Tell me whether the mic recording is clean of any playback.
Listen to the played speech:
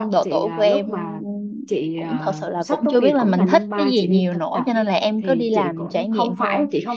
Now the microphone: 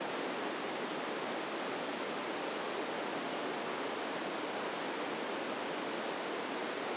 Yes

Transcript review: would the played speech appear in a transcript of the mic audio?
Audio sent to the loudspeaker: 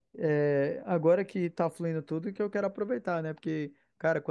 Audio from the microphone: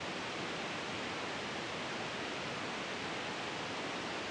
No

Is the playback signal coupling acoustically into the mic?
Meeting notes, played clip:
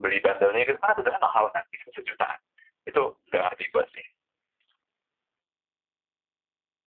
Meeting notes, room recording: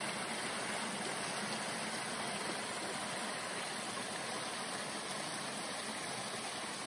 No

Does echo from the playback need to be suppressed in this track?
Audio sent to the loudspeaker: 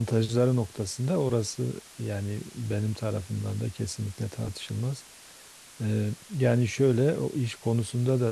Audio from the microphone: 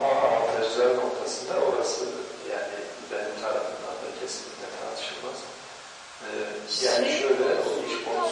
Yes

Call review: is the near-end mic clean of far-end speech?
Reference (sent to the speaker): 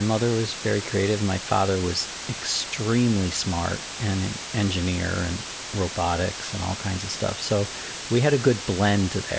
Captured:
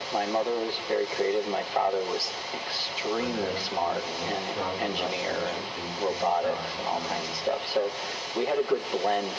No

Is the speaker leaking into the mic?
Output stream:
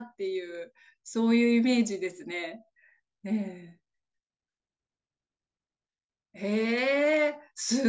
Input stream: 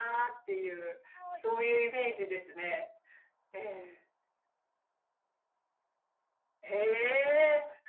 Yes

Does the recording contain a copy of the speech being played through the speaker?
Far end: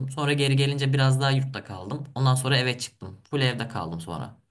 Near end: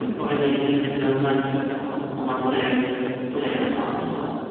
Yes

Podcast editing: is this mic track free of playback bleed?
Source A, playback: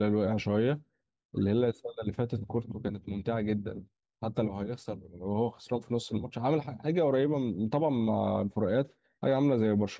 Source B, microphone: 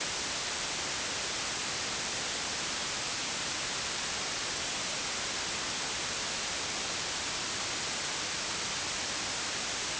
Yes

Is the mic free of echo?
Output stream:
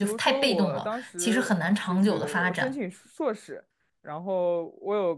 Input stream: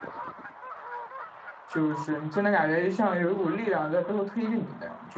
Yes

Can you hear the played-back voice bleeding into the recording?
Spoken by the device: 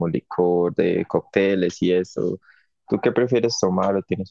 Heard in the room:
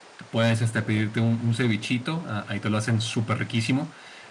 No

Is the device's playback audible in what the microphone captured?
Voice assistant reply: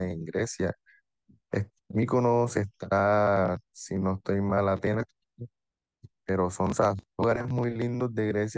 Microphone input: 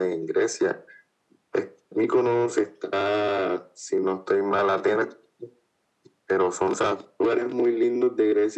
Yes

